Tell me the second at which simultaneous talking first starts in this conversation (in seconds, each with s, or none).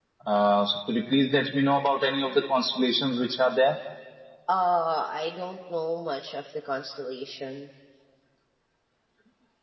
none